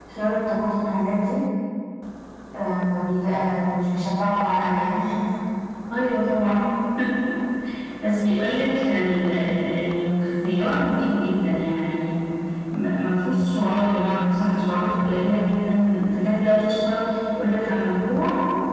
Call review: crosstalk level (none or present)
none